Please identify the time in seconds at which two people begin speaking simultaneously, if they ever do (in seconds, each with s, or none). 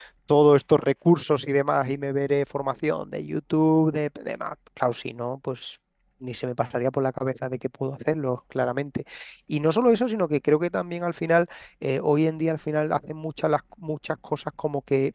none